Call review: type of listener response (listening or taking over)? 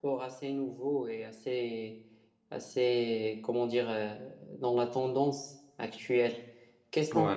listening